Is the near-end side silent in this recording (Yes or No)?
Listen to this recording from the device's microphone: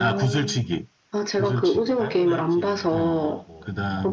No